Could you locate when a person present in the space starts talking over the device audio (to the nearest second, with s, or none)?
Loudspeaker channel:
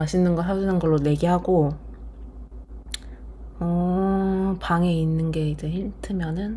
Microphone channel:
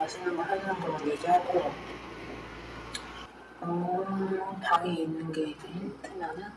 none